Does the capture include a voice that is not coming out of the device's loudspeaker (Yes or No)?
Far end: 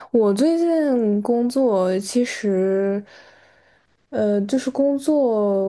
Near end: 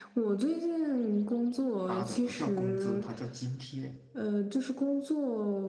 Yes